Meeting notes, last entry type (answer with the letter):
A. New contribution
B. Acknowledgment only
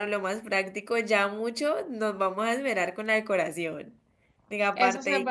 A